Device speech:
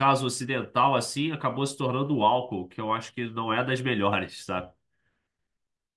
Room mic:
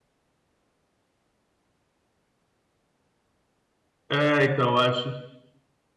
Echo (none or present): none